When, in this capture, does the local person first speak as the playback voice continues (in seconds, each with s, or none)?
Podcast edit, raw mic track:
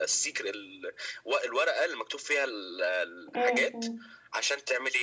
3.4 s